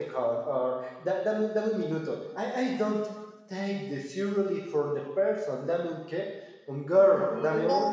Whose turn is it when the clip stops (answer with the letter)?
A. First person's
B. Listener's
B